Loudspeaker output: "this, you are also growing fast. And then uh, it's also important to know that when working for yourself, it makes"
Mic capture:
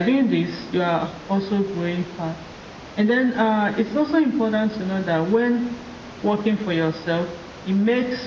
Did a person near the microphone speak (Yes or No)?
No